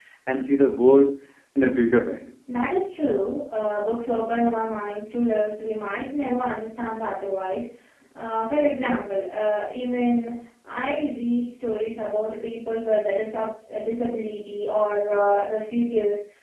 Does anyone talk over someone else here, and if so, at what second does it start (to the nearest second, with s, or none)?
none